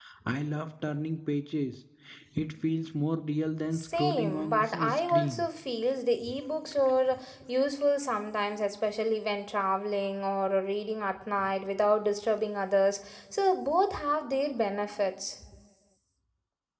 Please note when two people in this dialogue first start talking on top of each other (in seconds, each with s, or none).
3.7 s